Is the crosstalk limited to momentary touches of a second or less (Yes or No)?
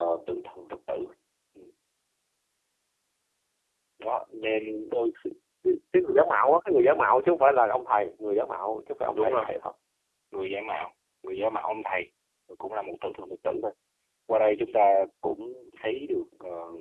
Yes